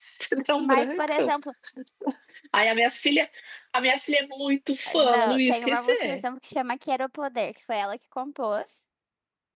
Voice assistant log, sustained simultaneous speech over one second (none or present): present